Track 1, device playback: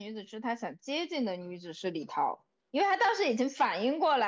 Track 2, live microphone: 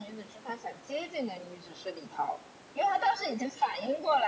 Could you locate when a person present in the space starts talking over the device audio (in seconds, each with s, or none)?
none